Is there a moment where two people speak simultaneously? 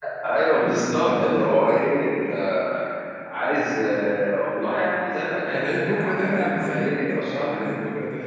Yes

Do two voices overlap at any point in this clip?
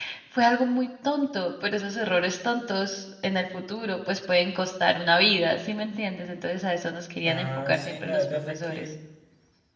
Yes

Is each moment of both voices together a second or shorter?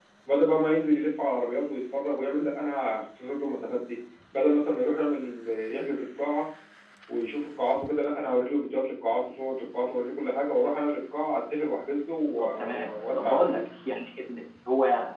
No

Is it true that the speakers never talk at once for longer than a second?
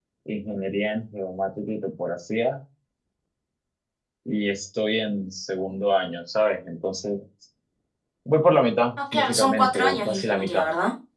No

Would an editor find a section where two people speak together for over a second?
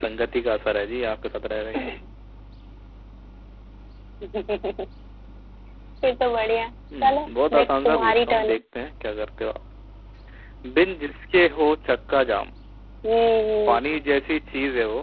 Yes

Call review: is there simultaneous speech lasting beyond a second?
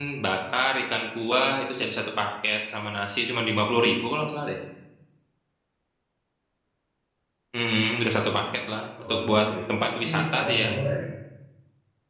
Yes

